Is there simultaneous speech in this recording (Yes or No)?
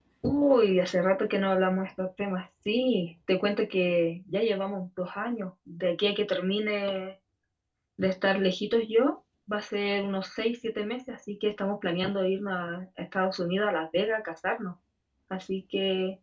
No